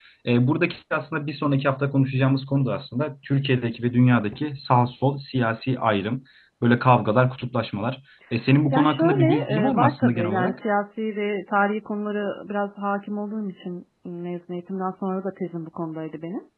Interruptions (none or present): present